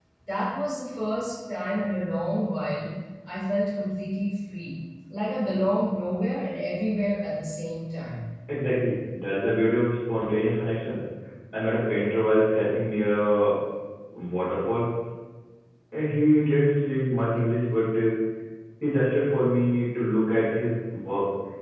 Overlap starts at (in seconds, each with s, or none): none